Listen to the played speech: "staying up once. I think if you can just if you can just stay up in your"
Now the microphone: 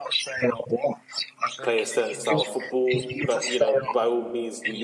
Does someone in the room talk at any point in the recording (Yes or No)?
Yes